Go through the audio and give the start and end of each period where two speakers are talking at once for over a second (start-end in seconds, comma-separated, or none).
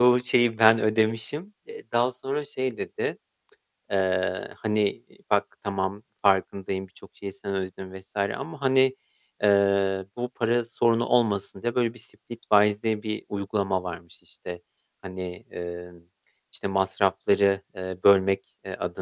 none